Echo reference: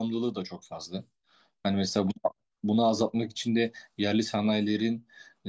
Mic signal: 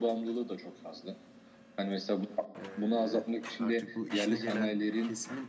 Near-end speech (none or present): present